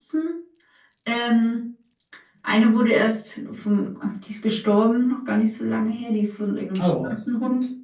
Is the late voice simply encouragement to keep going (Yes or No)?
Yes